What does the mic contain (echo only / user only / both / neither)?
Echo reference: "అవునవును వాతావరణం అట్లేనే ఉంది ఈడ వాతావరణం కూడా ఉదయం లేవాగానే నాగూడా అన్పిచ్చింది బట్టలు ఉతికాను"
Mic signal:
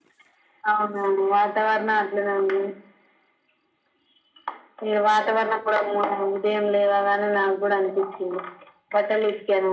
echo only